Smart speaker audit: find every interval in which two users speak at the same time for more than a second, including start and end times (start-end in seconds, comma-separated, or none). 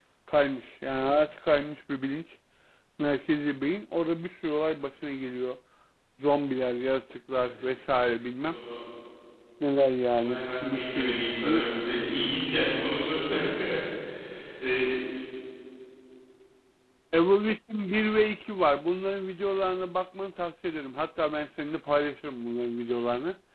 10.1-11.7